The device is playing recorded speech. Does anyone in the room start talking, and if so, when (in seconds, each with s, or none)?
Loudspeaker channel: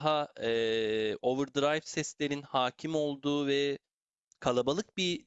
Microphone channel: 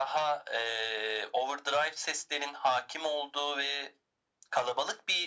none